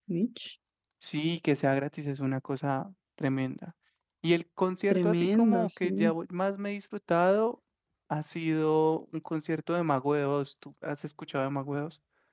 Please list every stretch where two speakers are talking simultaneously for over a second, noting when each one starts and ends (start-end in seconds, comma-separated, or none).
4.9-6.1